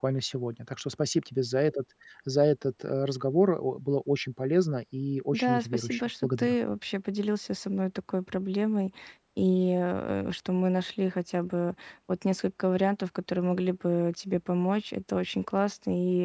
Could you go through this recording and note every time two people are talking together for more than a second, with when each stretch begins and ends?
5.3-6.5

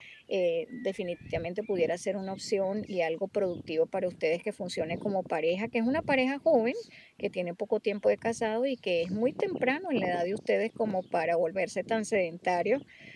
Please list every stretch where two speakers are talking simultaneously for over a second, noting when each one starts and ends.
none

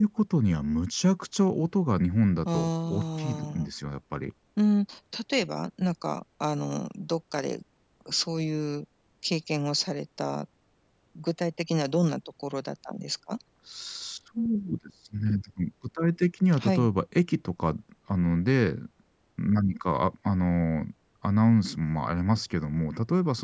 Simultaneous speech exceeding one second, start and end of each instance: 2.5-3.7

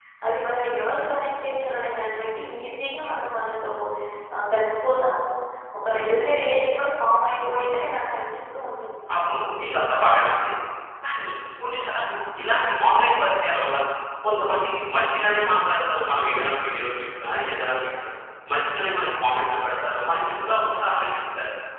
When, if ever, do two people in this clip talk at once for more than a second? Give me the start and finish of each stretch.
none

